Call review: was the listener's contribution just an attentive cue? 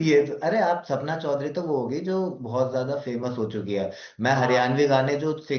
Yes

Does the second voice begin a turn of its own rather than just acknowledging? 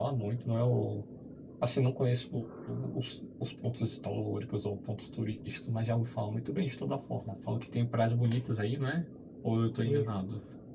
Yes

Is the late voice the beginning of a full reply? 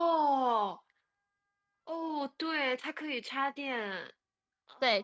Yes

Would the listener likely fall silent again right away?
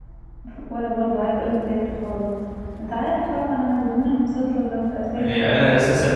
No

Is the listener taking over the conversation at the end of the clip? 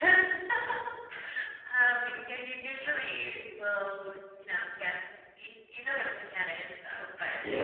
Yes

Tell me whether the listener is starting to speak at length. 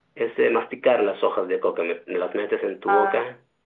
No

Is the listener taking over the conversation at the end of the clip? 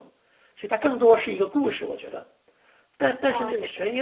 No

